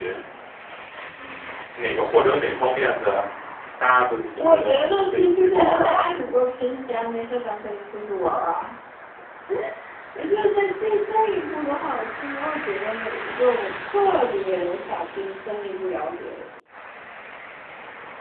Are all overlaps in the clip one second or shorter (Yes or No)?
No